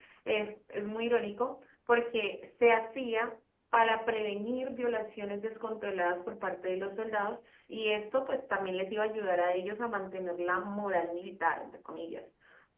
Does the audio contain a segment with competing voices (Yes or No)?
No